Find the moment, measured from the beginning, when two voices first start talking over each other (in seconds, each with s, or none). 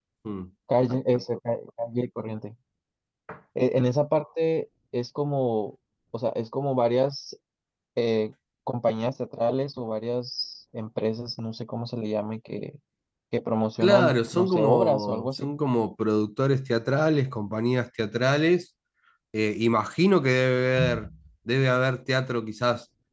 13.8 s